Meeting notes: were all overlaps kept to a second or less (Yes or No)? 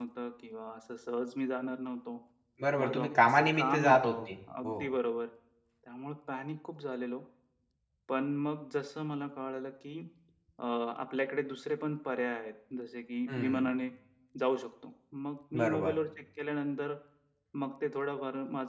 No